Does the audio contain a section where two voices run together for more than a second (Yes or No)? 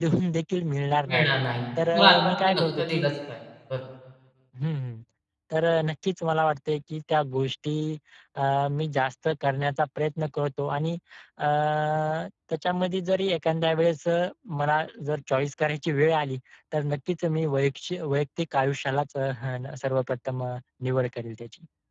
Yes